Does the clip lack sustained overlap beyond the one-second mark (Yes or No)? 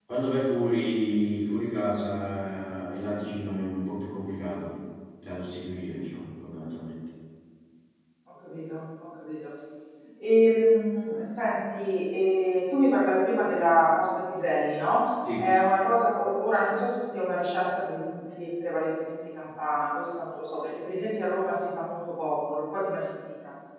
Yes